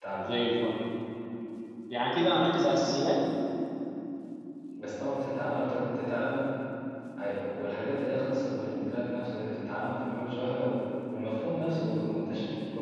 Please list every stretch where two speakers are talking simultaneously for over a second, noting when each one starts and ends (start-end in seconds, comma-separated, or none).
none